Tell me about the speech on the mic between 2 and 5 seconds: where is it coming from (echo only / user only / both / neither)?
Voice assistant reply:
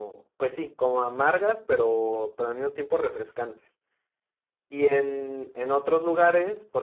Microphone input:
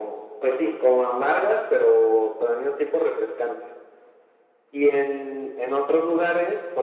echo only